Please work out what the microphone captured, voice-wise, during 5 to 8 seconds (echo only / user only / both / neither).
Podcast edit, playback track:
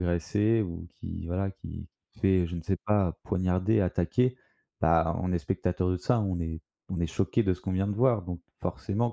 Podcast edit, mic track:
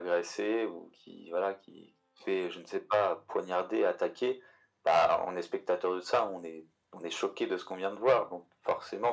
echo only